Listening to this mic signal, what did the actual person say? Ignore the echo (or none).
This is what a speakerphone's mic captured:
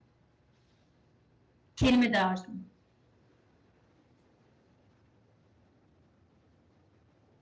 kelime dağarcığımı